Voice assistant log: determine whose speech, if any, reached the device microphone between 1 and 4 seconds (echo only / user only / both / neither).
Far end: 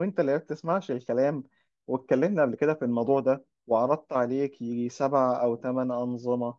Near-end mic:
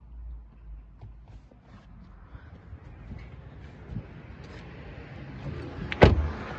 neither